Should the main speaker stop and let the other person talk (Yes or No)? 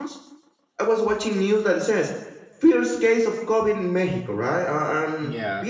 No